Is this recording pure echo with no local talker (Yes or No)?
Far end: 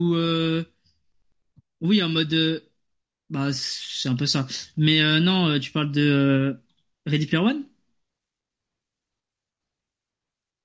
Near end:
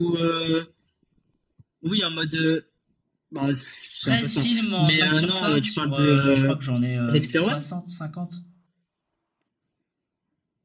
No